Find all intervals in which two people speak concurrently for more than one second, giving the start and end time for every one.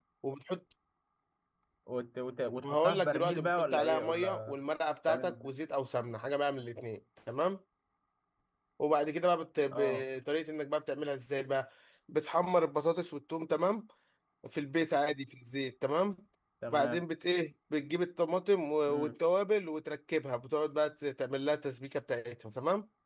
2.6-4.6

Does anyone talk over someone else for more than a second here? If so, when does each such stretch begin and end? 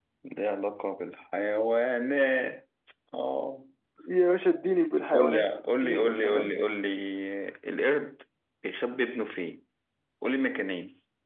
5.1-6.5

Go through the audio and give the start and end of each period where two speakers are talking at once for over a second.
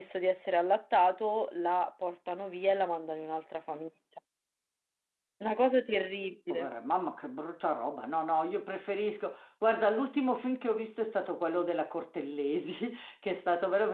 none

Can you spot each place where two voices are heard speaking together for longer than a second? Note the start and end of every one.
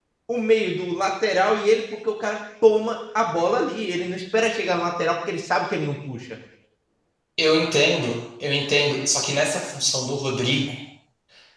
none

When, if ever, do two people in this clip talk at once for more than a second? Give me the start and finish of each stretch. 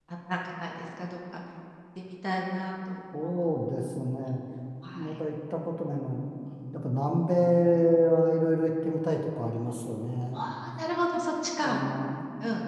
none

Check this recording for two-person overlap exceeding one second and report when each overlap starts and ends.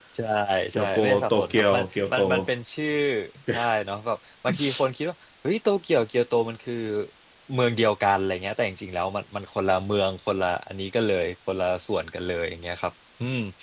0.7-2.2

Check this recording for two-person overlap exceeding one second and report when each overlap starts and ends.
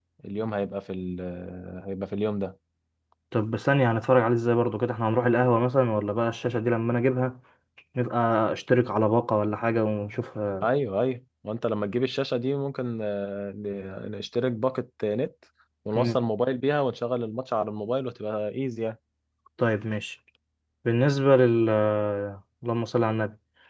none

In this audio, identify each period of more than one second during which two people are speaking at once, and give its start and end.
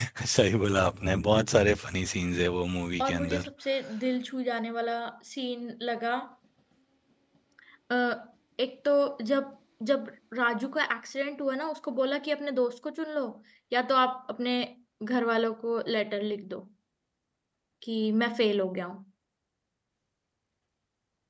none

